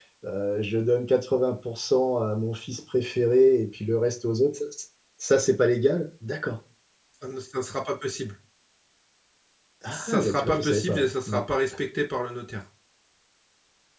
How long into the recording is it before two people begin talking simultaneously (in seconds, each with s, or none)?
9.9 s